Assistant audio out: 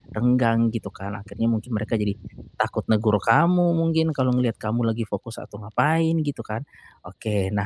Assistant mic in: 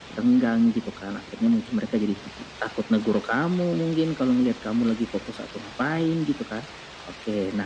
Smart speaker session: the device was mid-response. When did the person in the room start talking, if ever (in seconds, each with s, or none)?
none